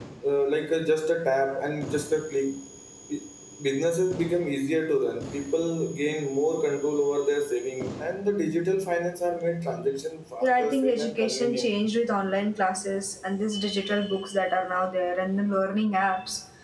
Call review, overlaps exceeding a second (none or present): present